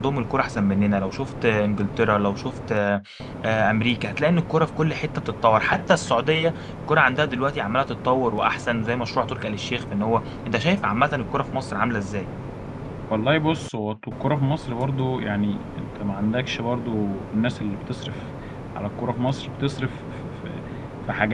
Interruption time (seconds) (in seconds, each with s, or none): none